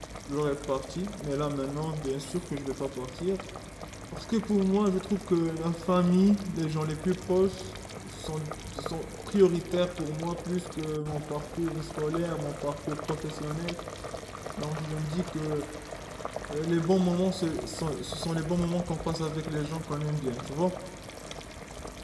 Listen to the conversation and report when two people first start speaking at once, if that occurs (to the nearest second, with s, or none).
none